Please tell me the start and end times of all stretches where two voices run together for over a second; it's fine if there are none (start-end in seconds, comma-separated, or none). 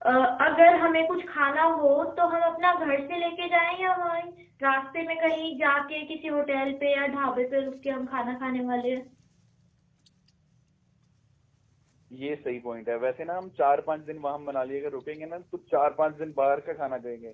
none